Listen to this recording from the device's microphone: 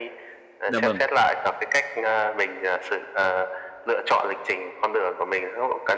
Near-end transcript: Dạ vâng.

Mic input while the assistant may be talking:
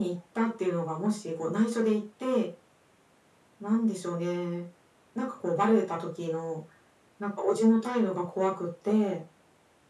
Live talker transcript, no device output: none

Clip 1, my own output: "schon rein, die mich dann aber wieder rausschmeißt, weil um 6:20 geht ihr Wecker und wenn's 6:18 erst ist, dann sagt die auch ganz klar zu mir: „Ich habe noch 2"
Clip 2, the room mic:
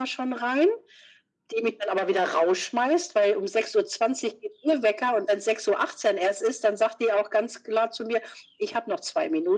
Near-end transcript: none

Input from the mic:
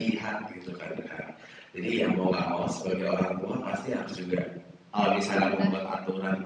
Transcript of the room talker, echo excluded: itu udah

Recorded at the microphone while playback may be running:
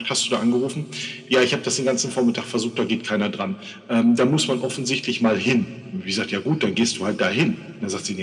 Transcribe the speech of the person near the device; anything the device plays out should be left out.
none

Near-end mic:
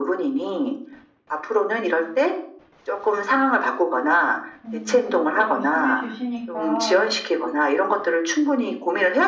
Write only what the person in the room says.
음 그렇게 말씀해 주시니까

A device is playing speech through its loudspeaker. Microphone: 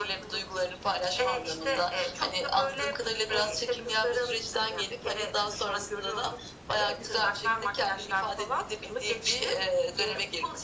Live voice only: none

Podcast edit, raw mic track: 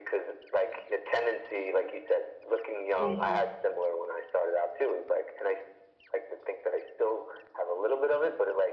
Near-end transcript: Mhm.

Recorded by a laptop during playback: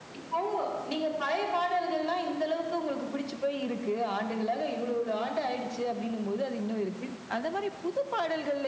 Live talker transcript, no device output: none

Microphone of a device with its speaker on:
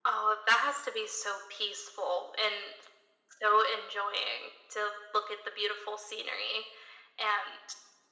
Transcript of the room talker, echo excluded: none

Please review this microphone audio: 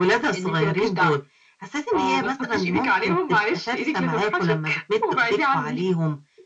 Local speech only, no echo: none

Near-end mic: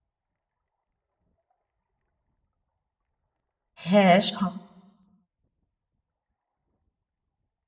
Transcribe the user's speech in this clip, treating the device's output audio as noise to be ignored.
হ্যাঁ, স

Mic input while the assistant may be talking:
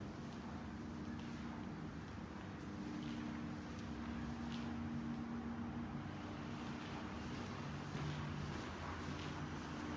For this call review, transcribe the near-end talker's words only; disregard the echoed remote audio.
none

